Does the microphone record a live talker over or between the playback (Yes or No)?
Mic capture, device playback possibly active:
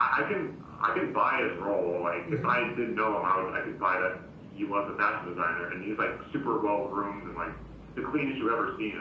Yes